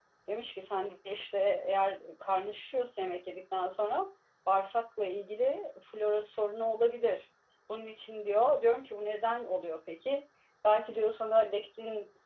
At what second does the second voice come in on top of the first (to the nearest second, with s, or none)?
none